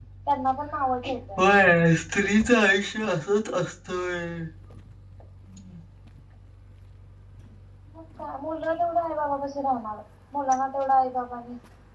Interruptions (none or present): none